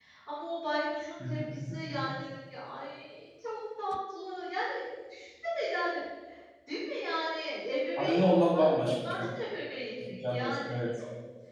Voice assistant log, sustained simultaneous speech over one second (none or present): present